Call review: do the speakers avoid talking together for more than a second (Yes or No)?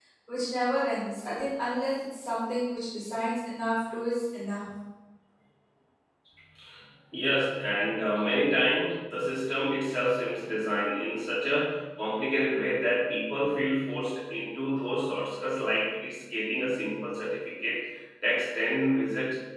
Yes